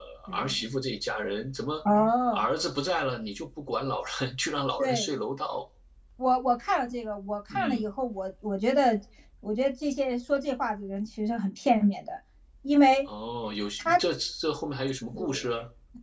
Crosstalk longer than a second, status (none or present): none